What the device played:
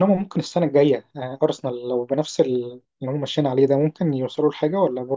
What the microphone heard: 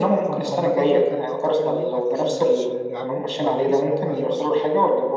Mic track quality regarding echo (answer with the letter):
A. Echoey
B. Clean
A